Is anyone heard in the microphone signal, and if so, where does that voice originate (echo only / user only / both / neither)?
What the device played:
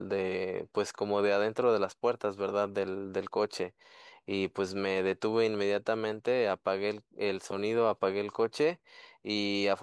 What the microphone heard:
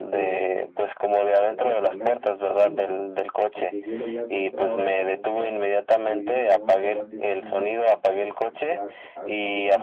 both